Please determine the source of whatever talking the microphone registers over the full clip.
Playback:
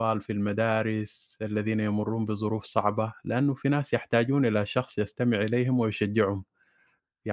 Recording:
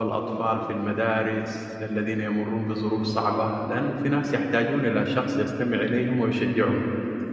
echo only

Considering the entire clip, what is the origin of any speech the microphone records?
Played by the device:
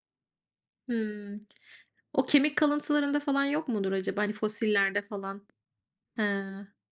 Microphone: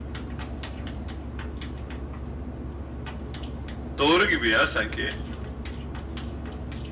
user only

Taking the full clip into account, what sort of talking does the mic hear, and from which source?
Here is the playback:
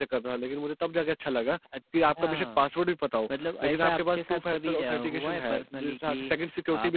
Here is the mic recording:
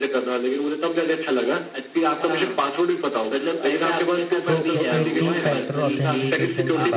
both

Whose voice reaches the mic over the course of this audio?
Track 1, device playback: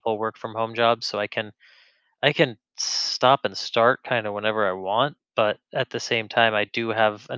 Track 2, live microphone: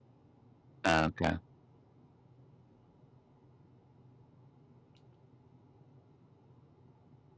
user only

